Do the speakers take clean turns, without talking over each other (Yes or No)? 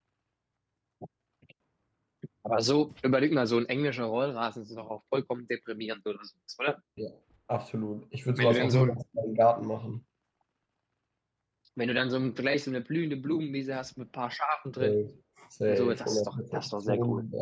No